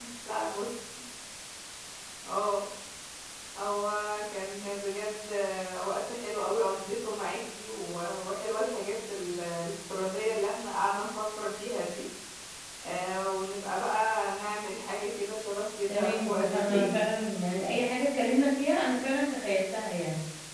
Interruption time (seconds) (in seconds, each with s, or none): 15.9 s